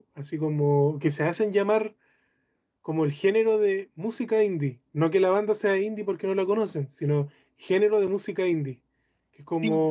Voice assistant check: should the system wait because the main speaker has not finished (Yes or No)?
Yes